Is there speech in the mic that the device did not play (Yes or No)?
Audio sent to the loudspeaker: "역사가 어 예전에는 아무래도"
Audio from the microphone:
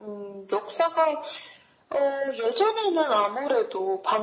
No